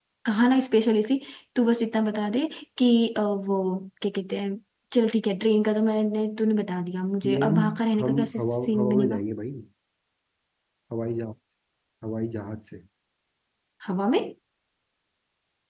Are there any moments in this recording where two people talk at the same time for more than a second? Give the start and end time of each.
8.0-9.2

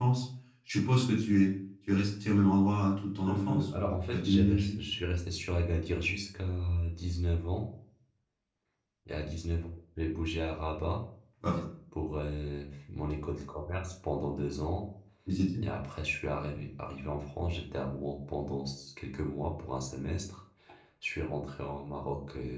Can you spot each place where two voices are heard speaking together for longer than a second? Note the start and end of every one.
3.3-4.8

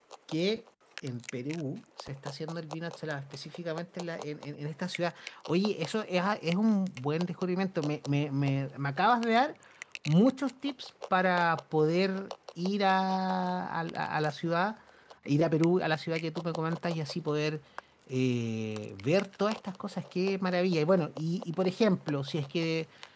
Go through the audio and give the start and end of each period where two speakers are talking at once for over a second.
none

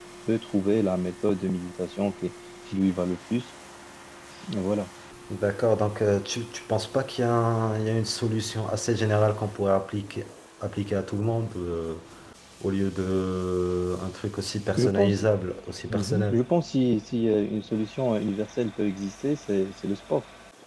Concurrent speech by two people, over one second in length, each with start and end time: none

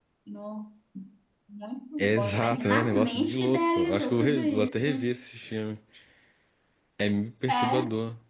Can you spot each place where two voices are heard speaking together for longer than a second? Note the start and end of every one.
2.0-4.9

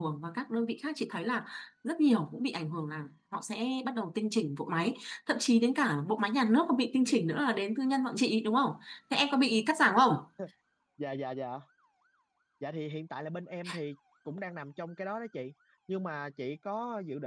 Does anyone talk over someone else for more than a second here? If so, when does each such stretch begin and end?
none

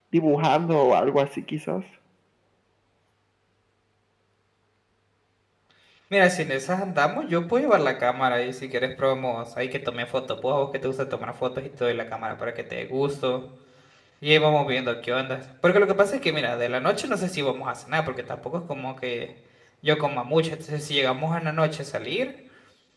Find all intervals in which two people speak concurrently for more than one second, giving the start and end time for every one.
none

